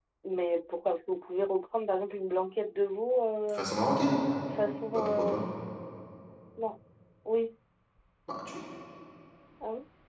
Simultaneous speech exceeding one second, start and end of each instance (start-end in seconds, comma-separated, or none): none